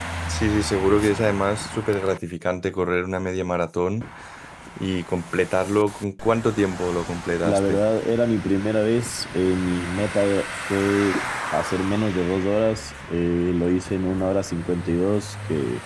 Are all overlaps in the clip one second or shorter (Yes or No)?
Yes